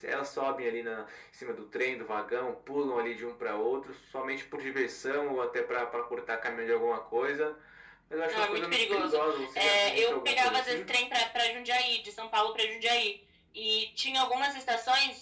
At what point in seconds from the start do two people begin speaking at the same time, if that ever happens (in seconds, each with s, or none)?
8.3 s